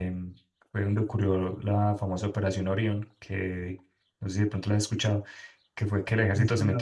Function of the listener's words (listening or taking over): listening